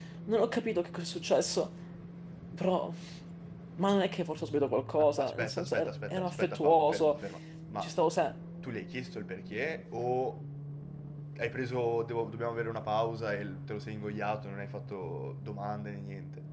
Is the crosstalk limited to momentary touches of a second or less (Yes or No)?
No